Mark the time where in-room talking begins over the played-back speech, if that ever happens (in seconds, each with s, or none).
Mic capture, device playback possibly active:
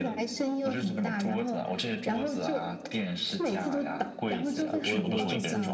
4.5 s